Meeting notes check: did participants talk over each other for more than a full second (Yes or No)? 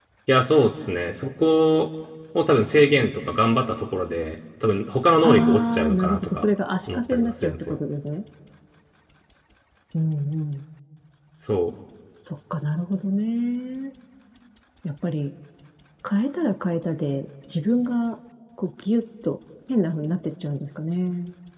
Yes